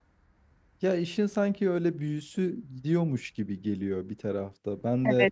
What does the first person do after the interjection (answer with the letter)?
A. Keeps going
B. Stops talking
B